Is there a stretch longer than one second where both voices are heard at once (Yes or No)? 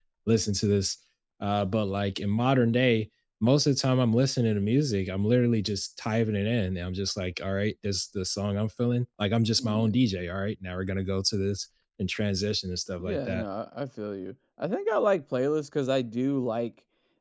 No